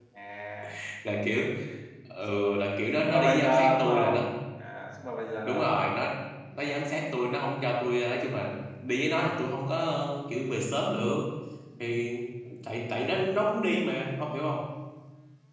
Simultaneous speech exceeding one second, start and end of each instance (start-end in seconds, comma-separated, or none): 3.0-4.3